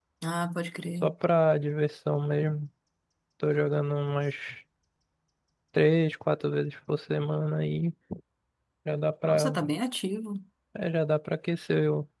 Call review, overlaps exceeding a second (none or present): none